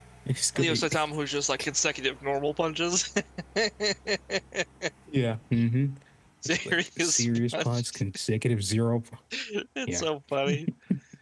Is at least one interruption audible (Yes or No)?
Yes